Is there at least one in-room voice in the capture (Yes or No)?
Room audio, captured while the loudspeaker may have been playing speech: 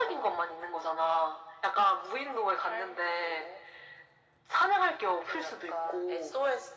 No